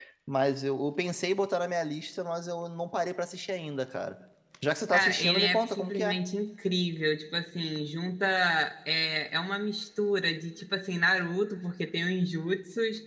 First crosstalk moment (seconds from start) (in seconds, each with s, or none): 4.9 s